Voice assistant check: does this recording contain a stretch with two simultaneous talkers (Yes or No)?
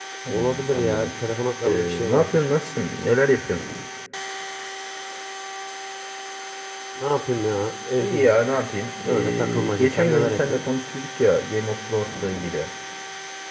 Yes